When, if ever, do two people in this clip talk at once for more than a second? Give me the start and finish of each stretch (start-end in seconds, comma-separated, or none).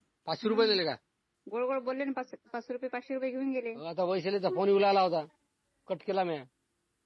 none